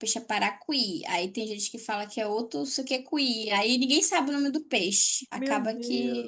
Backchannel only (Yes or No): No